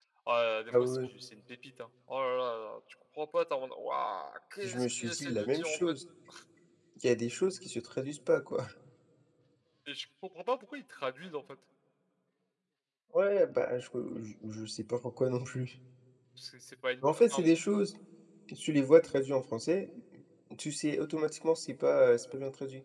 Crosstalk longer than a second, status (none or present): present